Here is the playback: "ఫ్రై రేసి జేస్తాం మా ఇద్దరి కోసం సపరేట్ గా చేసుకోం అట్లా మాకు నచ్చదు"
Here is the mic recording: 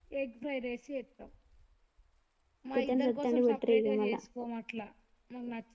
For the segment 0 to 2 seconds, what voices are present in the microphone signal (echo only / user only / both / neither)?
echo only